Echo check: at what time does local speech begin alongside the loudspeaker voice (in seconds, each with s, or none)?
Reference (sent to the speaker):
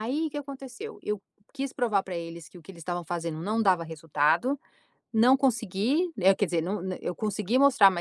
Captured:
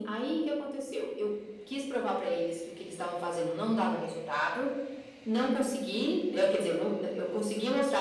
none